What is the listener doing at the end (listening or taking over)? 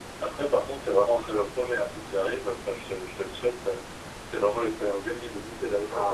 taking over